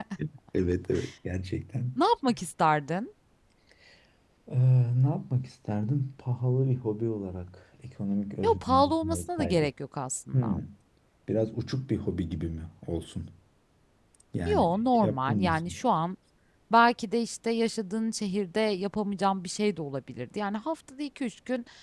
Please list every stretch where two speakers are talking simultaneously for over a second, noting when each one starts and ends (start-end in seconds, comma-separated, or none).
8.4-9.7, 14.5-15.8